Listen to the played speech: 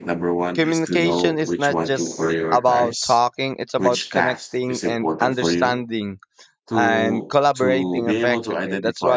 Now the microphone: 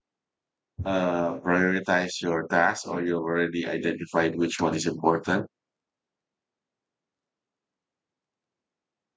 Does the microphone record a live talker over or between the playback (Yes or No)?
Yes